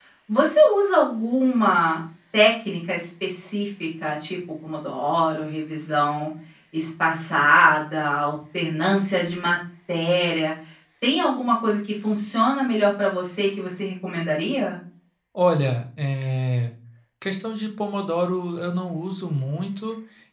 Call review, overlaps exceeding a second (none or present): none